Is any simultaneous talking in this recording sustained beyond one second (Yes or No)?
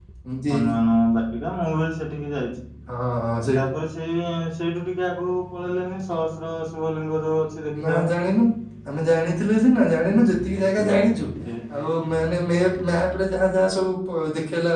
No